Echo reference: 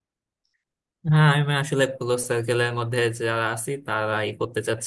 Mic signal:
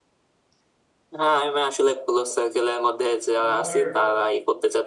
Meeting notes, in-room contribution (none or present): present